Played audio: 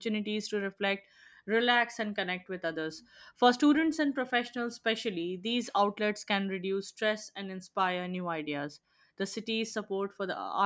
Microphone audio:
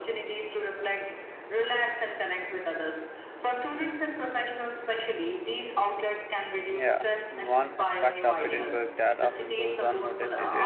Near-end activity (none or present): present